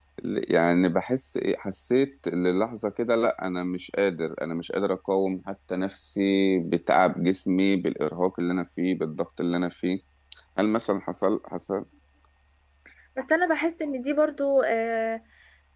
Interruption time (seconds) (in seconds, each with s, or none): none